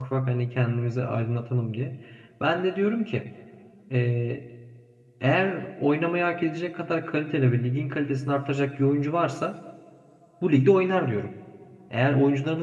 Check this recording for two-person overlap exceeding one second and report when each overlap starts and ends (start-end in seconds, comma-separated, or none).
none